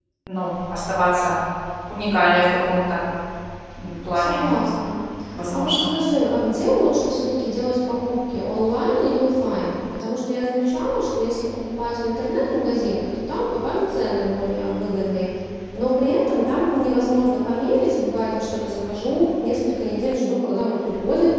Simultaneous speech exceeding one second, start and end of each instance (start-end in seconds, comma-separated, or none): none